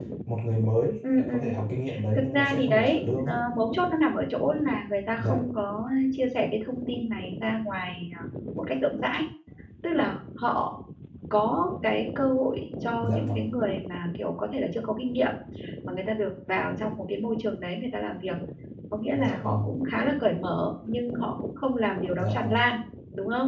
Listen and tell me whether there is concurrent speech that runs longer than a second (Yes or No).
Yes